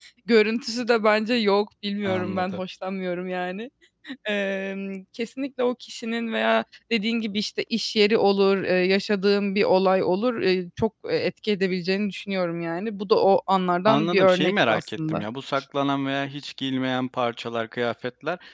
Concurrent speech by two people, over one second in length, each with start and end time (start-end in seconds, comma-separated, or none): 13.9-15.2